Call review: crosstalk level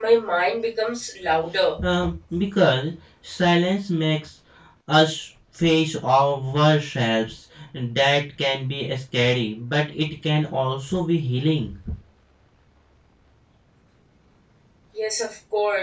none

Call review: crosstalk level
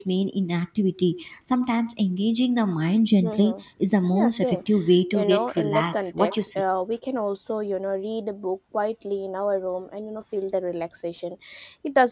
present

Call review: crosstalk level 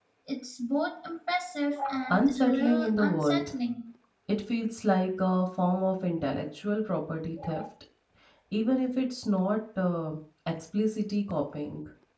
present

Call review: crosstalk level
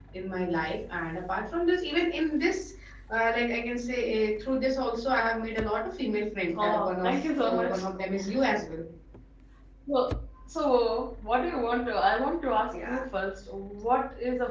present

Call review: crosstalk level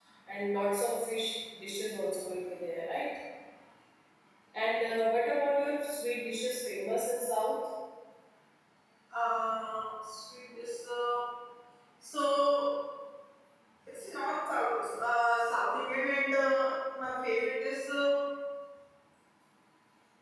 none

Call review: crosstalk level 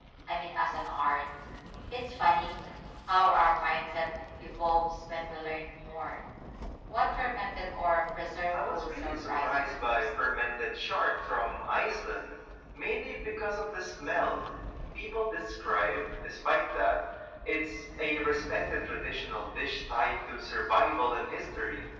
present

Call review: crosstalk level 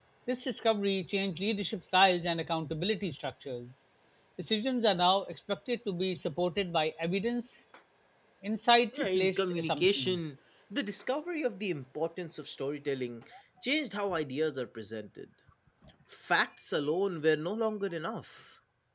present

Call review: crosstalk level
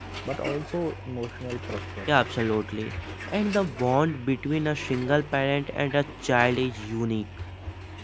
none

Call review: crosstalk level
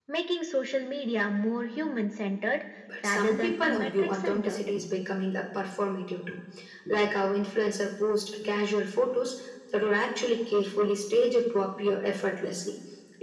present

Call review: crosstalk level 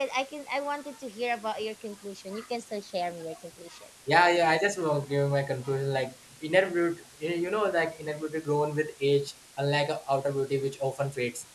none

